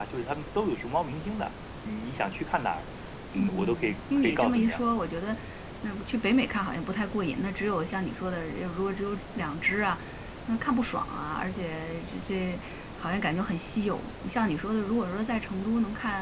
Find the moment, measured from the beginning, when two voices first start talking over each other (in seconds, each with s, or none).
3.4 s